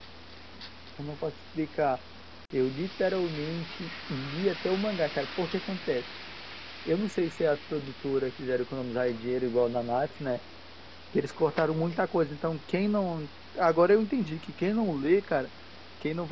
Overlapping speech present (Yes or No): No